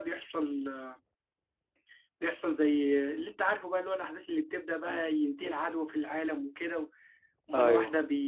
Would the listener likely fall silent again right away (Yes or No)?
Yes